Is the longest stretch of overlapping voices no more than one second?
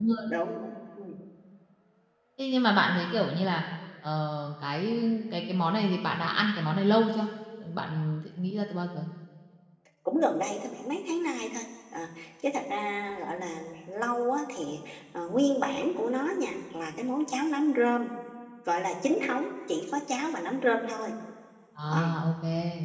Yes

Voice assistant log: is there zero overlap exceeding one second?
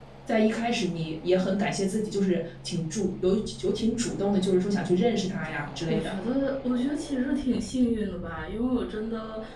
Yes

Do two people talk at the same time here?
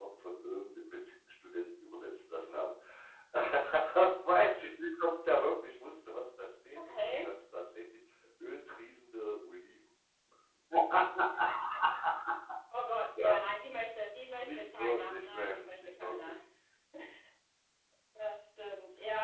Yes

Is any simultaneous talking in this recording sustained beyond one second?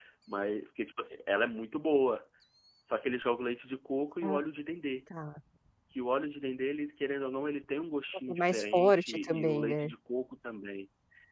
Yes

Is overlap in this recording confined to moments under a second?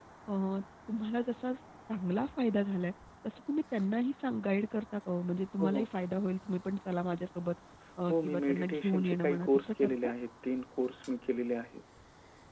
No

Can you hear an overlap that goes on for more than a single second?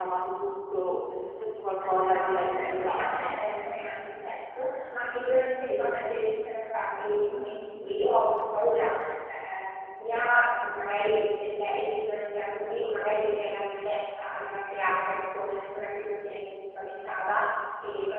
Yes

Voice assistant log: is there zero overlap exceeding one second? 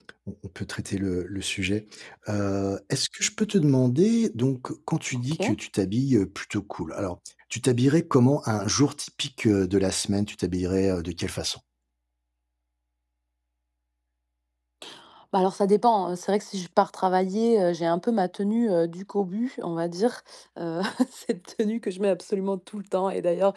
Yes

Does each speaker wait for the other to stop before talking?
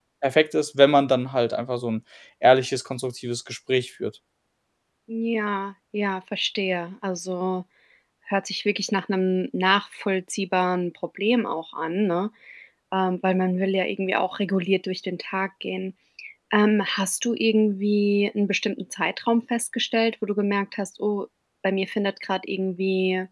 Yes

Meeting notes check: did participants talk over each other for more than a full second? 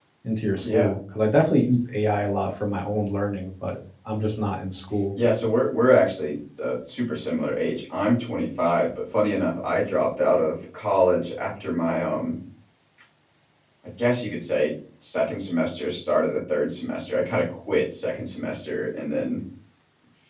No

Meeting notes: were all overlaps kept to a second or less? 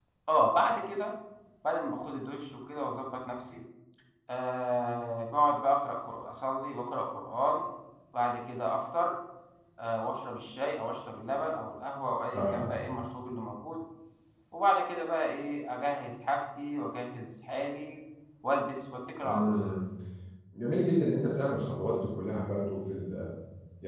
Yes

